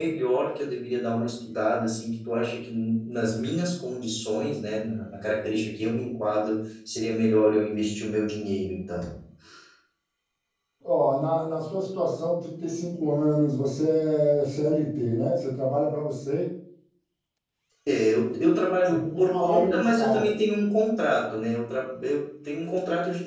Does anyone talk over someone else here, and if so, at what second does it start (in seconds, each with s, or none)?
18.9 s